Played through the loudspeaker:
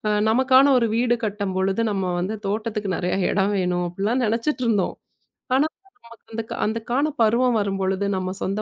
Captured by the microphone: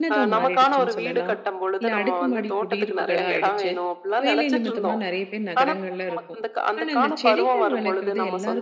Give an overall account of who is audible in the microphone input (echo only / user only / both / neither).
both